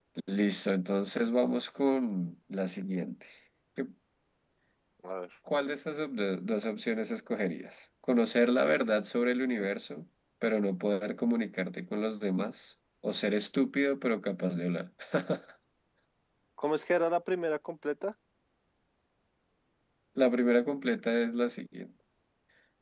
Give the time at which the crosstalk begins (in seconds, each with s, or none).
none